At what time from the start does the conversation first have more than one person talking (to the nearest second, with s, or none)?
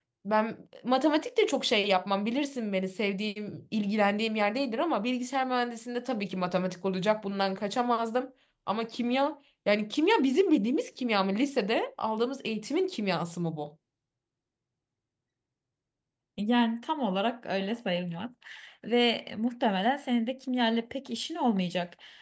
none